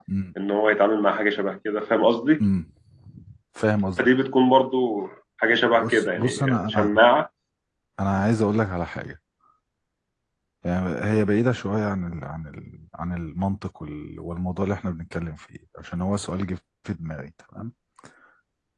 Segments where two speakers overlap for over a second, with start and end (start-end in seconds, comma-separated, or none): 5.7-7.0